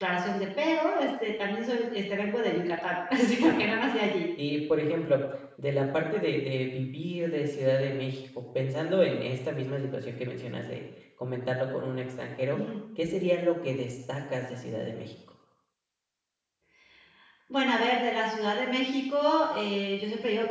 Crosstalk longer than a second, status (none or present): none